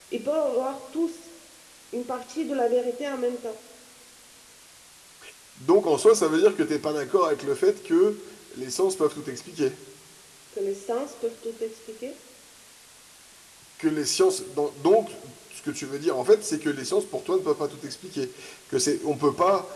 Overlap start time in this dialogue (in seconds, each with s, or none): none